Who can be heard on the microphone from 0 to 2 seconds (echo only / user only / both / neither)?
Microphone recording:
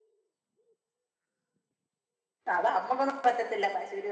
neither